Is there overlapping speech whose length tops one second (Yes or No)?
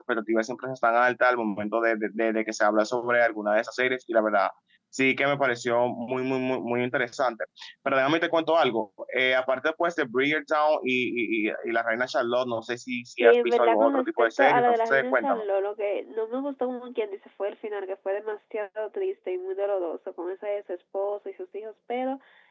Yes